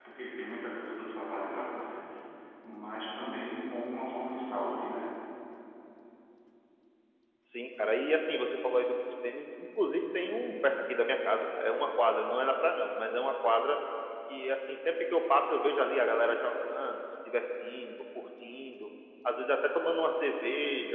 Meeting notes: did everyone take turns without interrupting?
Yes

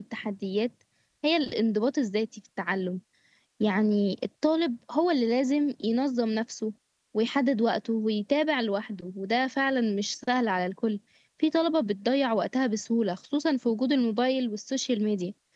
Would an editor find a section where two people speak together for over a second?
No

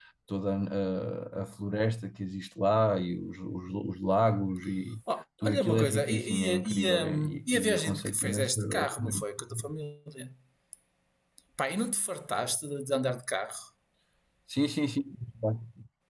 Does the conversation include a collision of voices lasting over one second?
Yes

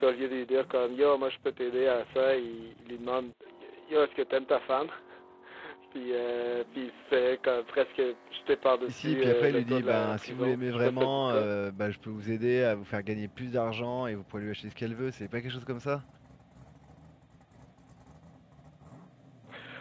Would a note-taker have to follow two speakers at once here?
Yes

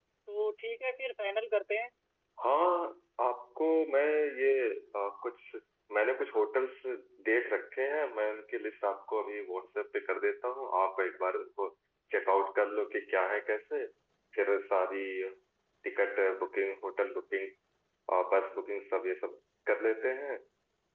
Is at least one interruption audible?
No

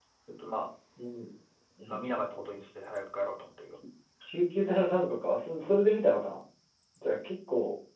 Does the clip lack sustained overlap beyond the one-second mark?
Yes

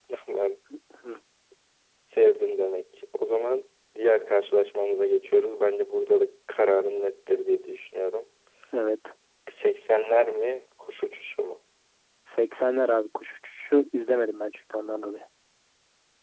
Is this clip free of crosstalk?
Yes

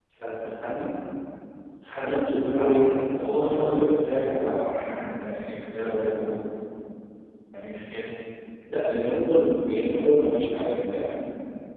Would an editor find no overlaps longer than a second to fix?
No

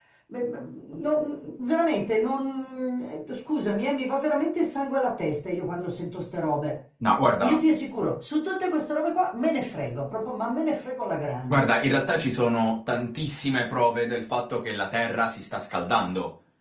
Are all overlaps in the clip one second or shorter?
Yes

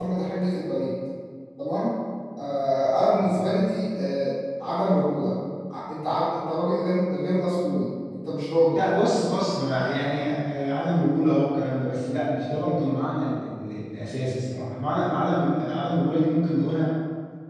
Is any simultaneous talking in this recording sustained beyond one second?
No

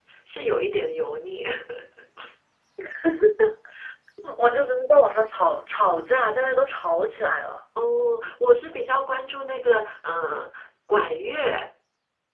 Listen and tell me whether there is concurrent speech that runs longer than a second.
No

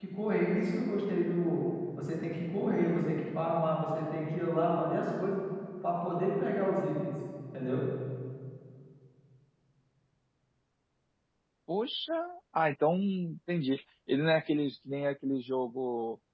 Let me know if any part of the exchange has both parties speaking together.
No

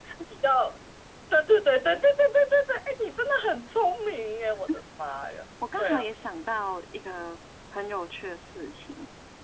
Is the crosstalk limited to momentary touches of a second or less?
Yes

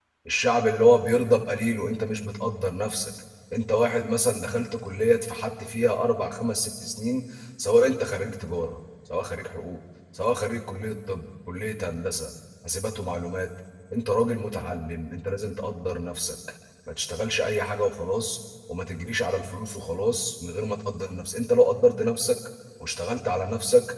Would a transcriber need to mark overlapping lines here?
No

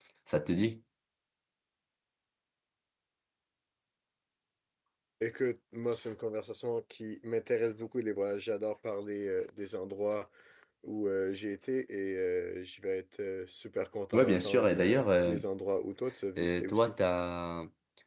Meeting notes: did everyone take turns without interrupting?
No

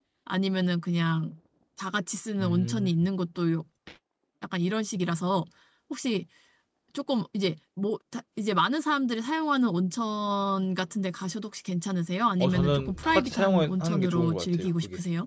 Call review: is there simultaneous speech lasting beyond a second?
Yes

